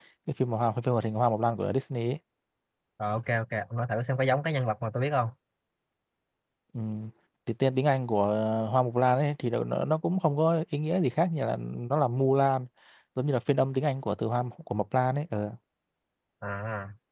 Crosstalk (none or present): none